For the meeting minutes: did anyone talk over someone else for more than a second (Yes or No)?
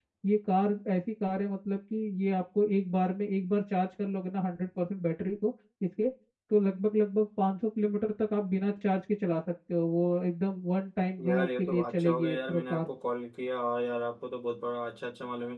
Yes